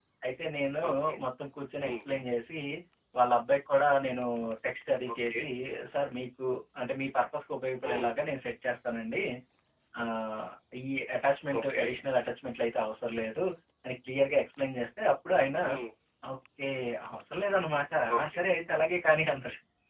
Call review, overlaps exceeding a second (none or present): none